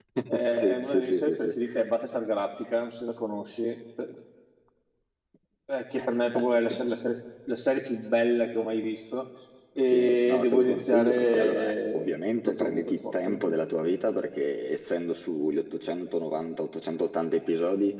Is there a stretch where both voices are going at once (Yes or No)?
Yes